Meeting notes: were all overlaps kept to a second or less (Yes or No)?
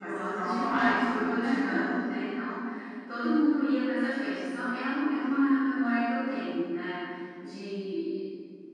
No